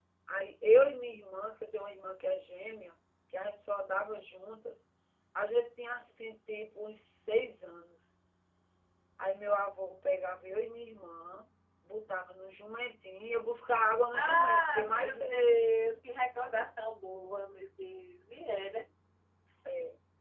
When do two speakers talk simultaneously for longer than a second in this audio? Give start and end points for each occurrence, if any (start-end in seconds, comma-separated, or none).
14.1-15.4